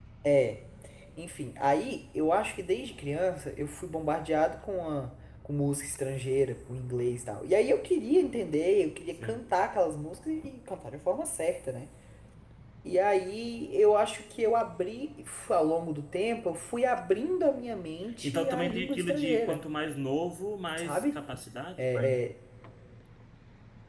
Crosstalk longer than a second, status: present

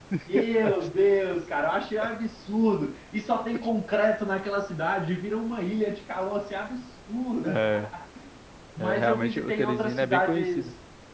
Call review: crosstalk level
present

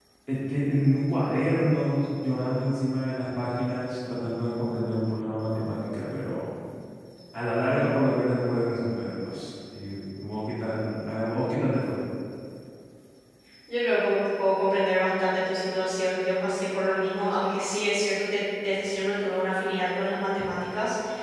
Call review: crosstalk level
none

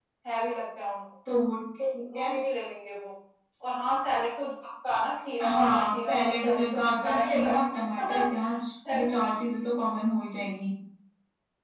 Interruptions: present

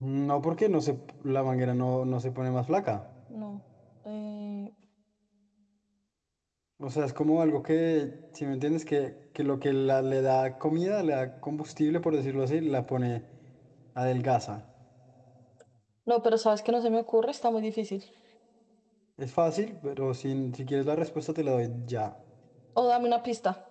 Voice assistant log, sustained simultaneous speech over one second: none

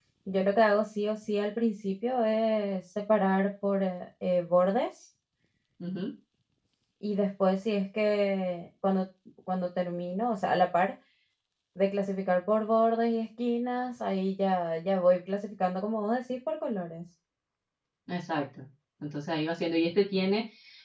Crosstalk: none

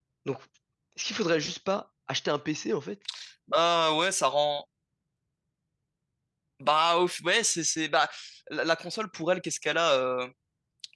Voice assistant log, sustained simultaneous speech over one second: none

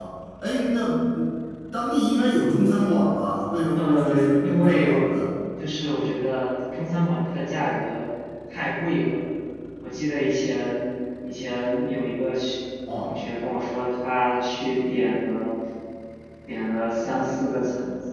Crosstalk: present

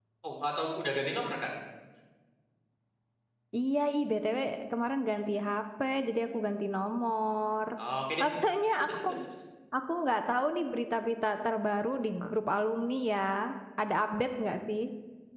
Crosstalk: none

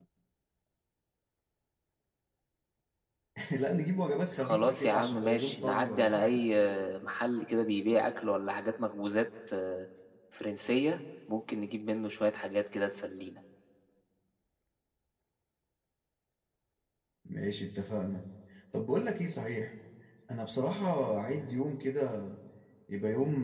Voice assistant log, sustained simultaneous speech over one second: present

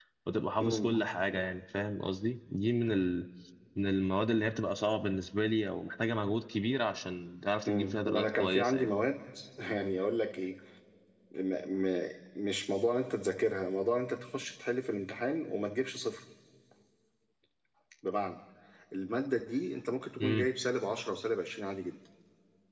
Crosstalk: present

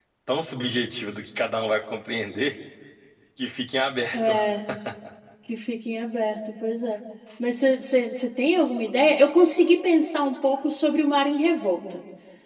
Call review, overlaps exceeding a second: none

